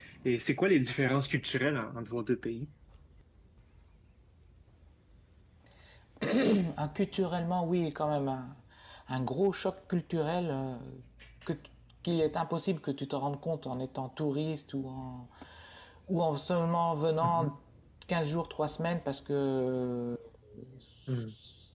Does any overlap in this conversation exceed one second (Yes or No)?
No